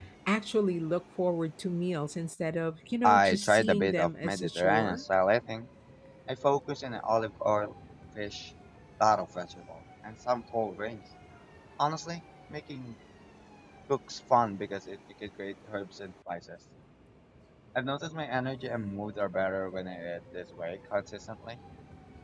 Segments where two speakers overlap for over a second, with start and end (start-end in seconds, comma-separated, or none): 3.0-5.0